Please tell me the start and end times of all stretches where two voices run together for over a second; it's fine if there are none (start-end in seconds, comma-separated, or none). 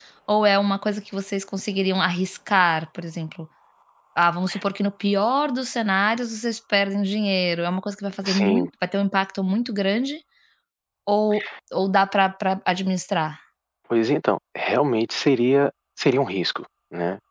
none